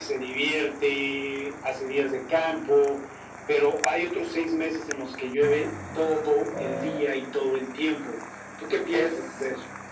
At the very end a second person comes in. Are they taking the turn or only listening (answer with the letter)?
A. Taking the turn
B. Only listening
A